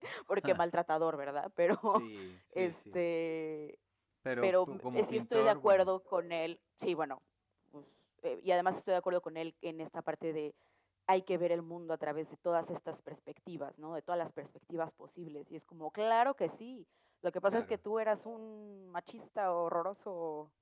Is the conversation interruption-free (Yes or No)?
No